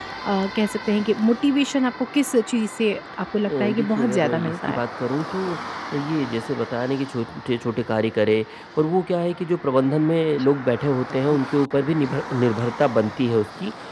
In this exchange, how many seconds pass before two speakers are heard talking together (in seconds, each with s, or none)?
3.5 s